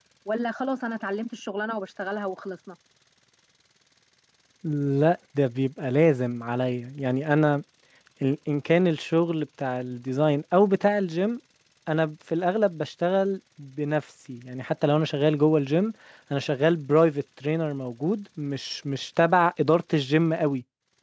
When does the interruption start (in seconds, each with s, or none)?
none